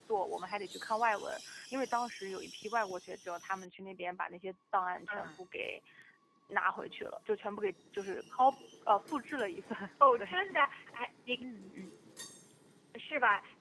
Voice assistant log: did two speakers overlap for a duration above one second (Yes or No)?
No